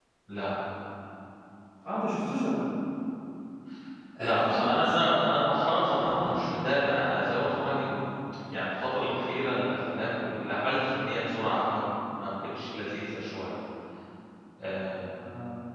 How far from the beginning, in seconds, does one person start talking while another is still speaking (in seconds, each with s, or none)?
4.2 s